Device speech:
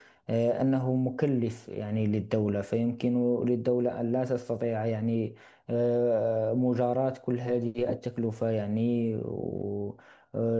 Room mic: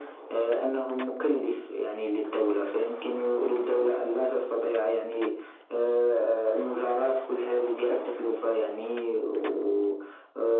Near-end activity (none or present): none